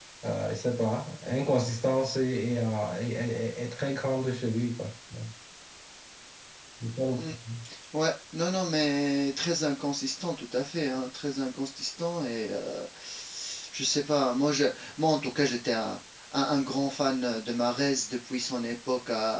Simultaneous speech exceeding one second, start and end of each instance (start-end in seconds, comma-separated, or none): none